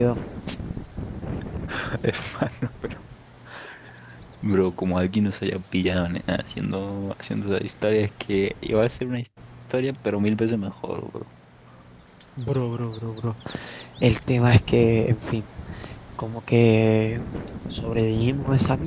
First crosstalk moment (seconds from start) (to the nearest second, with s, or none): none